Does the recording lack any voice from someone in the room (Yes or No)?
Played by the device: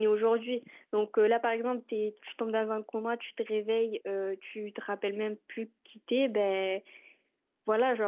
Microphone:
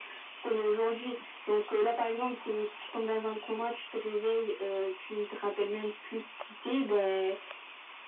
Yes